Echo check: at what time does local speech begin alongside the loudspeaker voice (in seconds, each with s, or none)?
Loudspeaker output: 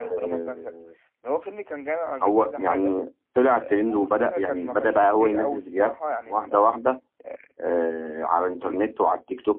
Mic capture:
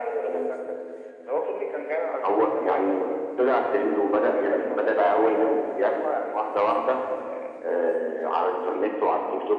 none